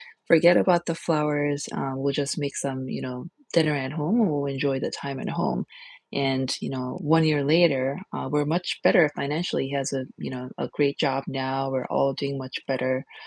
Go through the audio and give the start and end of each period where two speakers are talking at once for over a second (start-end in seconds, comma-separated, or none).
none